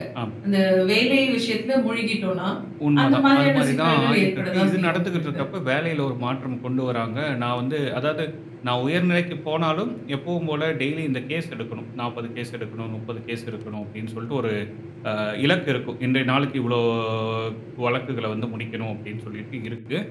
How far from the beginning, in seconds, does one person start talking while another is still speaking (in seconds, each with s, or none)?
3.0 s